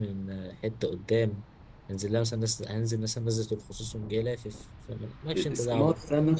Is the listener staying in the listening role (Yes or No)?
No